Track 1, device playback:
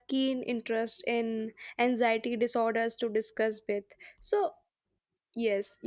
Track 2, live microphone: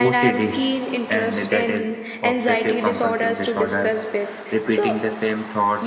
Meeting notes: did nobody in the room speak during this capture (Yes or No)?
No